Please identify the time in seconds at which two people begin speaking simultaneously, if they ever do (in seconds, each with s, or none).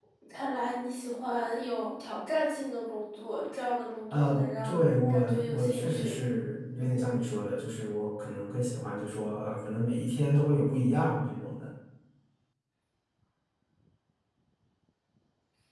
4.1 s